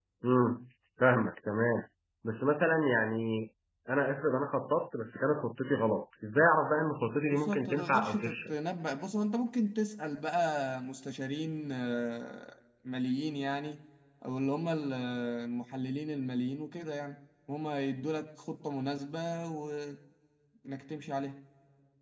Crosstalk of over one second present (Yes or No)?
Yes